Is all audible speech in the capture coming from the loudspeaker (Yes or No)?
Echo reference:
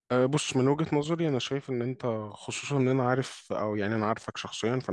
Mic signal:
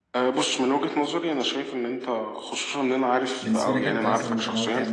No